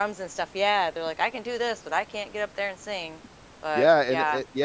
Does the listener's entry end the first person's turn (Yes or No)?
Yes